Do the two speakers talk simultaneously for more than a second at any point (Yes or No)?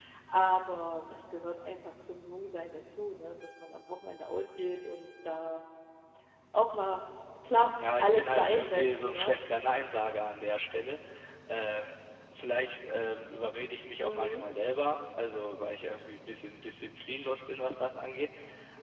Yes